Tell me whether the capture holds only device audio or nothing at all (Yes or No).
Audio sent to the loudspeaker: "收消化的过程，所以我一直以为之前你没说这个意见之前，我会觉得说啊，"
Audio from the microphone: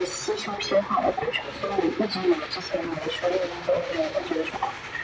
Yes